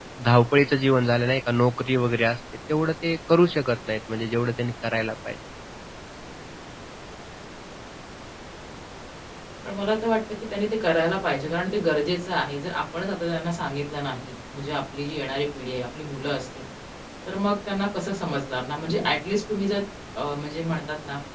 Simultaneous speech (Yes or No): No